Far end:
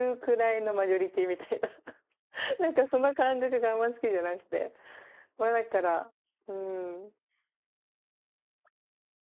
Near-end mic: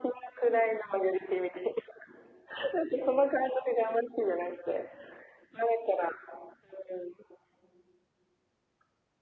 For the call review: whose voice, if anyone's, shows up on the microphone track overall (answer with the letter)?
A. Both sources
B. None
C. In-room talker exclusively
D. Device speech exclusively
D